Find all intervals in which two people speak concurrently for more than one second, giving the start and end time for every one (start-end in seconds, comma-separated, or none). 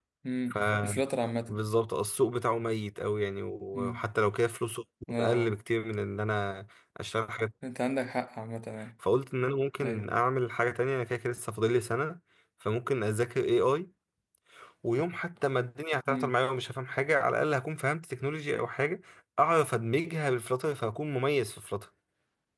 none